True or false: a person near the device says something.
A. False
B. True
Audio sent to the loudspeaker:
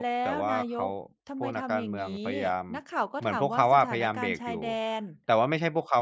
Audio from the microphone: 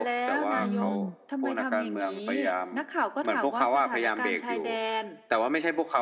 B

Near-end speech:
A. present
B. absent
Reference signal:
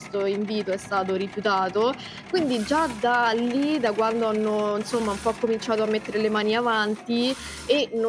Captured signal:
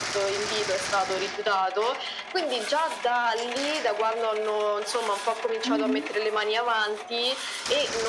A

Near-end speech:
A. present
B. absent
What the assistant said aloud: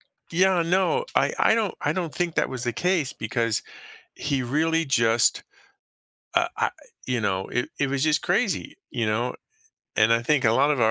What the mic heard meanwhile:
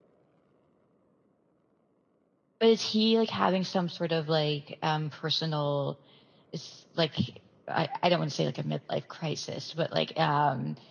A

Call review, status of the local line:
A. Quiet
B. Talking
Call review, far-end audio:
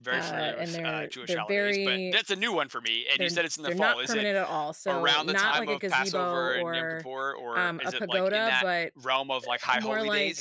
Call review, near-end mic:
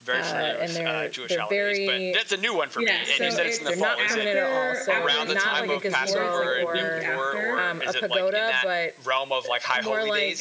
B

